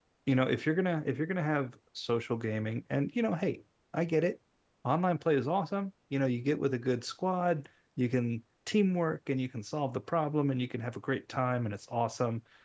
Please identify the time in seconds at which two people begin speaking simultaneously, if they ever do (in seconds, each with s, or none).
none